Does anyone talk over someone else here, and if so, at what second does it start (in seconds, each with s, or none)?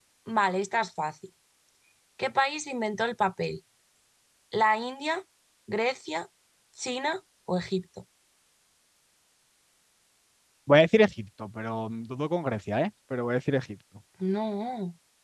none